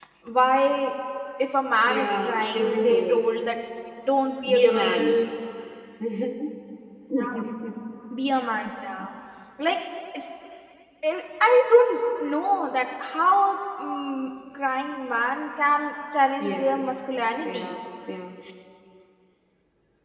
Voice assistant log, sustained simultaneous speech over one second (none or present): present